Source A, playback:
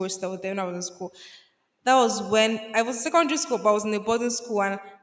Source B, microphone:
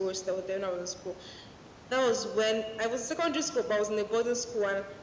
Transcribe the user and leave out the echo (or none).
none